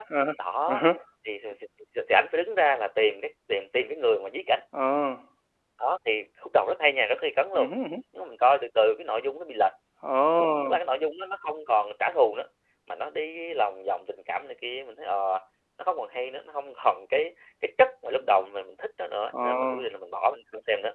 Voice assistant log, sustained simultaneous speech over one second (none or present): none